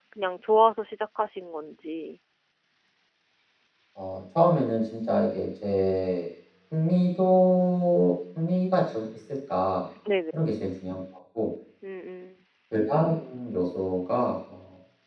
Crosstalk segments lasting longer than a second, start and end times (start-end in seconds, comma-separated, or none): none